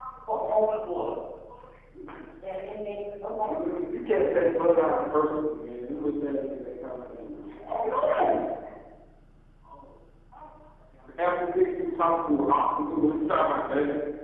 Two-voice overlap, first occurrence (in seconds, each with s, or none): none